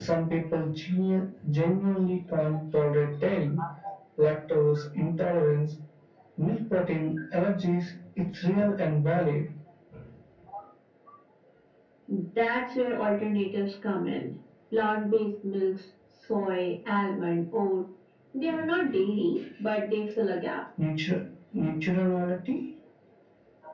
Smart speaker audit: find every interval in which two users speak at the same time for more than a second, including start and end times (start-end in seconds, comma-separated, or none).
none